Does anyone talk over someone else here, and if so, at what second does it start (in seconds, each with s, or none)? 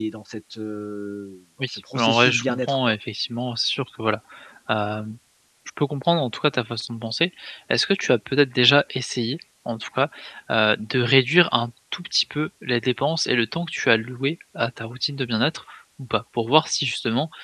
1.6 s